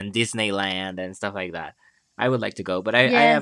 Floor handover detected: No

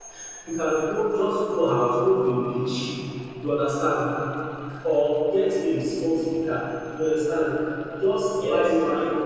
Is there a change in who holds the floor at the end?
No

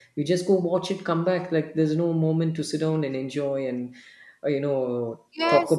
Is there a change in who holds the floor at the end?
Yes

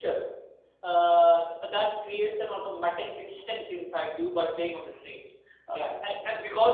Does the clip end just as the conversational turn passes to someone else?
No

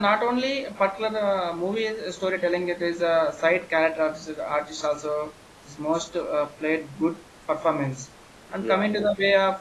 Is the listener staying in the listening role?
Yes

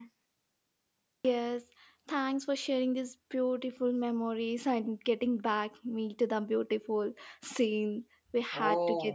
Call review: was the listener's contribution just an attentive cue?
No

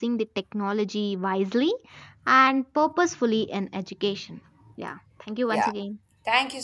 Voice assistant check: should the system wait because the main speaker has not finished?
No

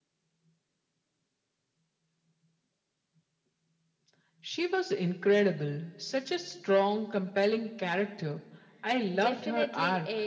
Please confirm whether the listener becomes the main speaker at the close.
Yes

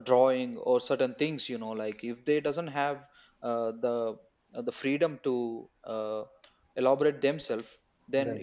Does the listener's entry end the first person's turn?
No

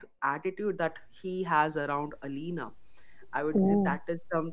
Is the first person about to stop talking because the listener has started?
No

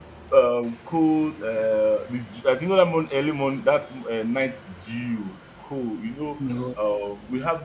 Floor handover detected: No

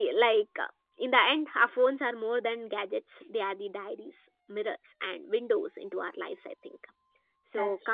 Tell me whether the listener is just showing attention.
Yes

